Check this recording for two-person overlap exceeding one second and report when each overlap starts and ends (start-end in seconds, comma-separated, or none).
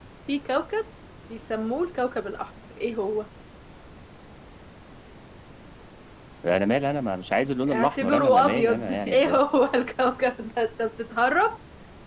7.7-9.4